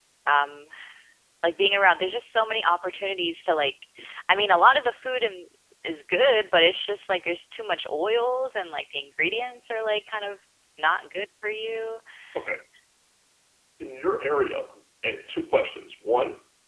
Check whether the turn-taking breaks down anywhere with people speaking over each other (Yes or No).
No